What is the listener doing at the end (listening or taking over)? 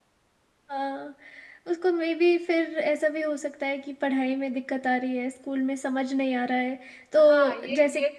taking over